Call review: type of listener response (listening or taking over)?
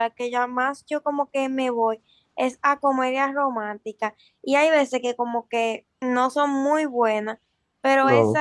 listening